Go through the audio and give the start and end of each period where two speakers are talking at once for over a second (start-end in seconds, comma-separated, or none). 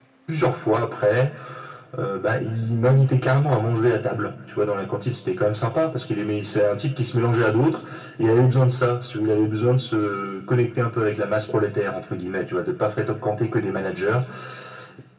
none